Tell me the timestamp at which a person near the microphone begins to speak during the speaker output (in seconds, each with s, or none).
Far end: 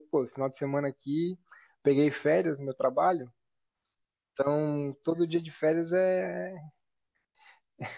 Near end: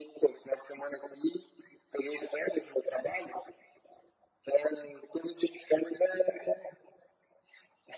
none